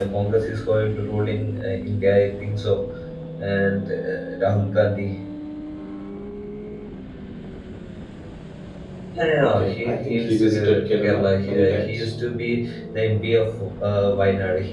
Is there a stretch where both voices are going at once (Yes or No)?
Yes